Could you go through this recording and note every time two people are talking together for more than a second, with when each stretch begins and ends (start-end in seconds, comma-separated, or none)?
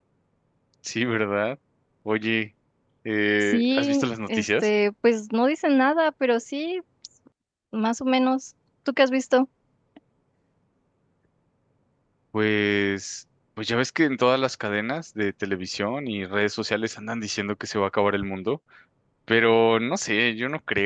3.4-4.7